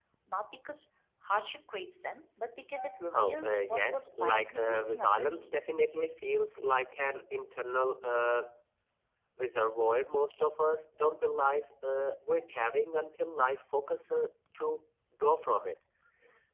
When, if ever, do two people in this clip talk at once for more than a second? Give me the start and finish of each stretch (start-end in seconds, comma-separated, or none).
3.1-5.7